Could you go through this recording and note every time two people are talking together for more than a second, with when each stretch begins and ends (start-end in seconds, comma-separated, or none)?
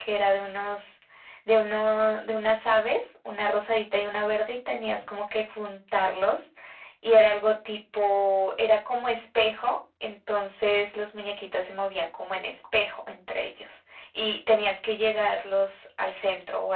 none